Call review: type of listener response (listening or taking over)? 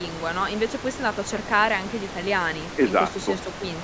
taking over